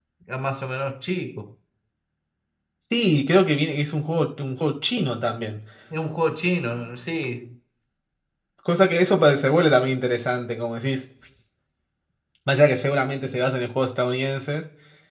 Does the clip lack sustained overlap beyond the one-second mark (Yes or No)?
Yes